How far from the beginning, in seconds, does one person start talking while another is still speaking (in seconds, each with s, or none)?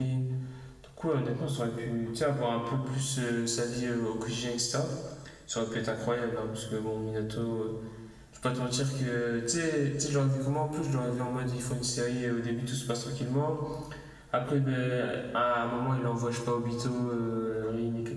none